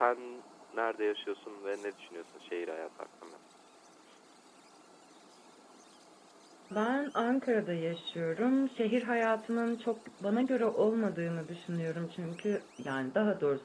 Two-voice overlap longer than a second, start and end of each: none

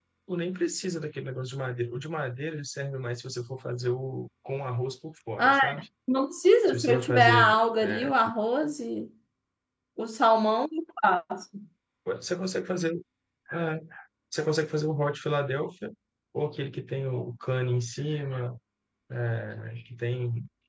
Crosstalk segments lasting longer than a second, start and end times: 6.7-8.1

